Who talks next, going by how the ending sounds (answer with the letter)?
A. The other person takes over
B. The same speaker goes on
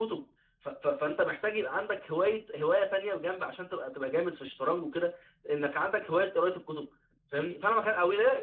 B